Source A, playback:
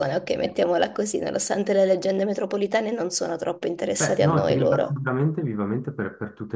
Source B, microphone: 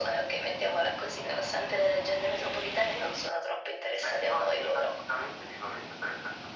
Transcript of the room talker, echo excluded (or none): none